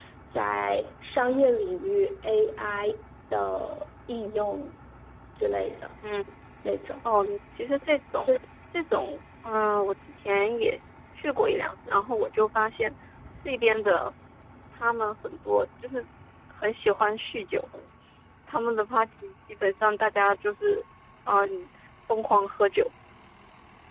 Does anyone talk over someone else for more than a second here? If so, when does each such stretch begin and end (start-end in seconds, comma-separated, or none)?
none